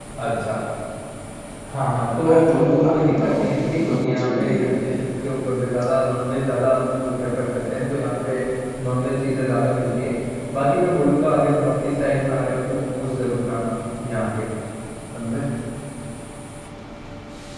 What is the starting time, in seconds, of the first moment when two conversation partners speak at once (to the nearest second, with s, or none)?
2 s